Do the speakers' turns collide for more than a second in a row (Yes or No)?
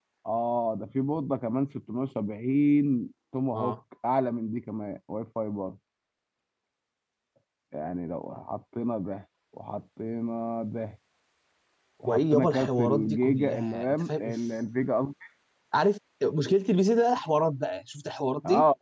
Yes